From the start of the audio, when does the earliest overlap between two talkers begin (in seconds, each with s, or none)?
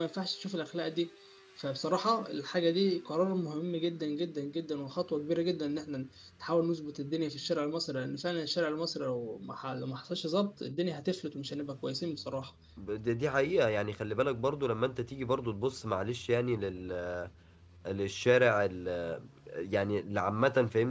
none